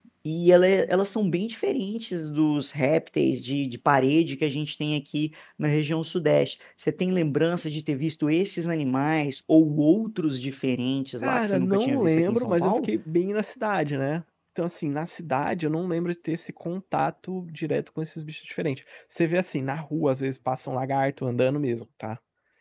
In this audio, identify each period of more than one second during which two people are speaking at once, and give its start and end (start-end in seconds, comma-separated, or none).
11.2-12.9